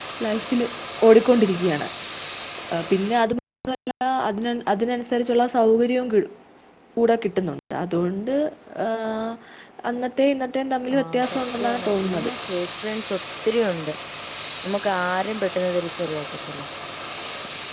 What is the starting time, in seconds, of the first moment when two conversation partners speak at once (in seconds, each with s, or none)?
10.9 s